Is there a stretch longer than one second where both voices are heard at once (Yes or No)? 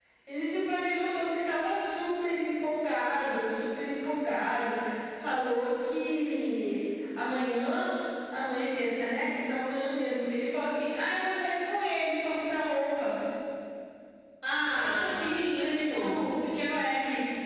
Yes